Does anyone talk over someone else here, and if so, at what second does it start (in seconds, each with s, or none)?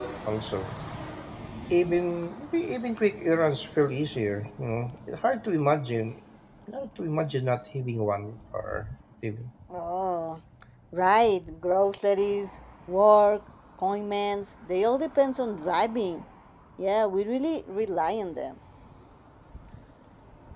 none